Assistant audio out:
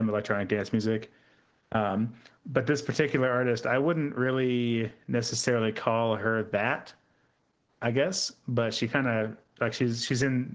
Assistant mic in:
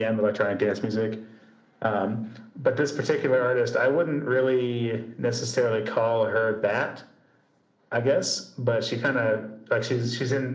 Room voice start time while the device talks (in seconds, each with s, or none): none